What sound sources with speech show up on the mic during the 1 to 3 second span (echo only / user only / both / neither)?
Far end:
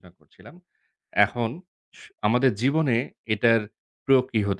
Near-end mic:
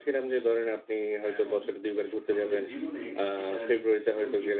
both